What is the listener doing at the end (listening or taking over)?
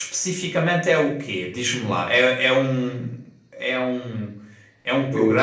listening